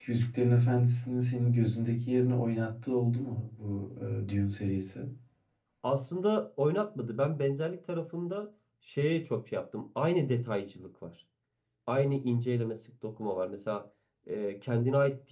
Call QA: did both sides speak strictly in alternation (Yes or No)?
Yes